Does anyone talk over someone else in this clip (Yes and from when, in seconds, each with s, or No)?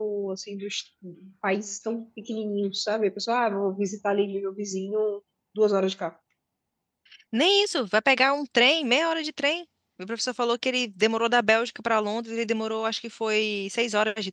No